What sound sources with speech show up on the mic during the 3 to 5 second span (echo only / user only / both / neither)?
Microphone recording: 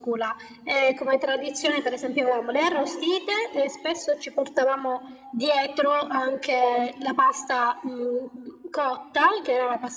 echo only